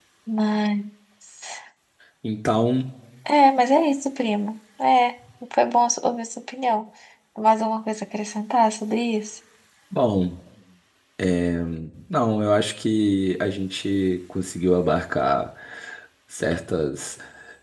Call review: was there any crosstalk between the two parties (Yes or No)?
No